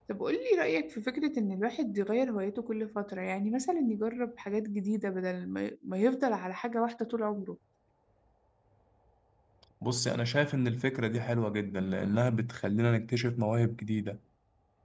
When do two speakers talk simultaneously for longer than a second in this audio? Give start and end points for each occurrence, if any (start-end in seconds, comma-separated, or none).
none